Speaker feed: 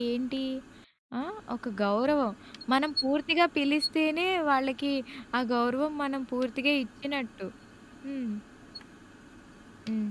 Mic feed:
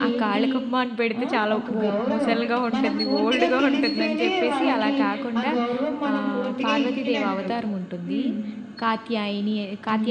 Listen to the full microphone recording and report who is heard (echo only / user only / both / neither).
both